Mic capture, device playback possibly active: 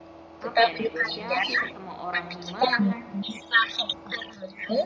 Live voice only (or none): apa ya negosiasi sama orang gimana.